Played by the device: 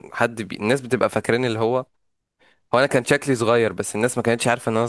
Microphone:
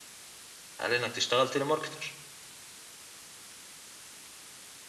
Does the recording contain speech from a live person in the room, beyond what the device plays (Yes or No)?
Yes